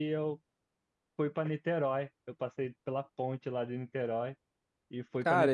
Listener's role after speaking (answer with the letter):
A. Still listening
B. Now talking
B